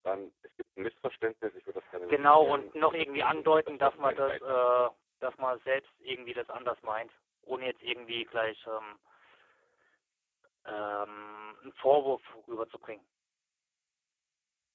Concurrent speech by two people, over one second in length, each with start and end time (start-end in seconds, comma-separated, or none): 2.1-4.6